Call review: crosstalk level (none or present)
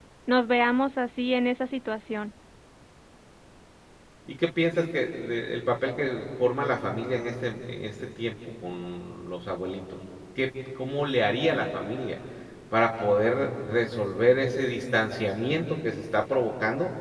none